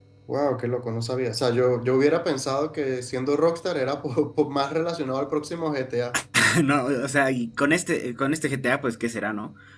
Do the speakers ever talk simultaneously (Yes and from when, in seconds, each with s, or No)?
No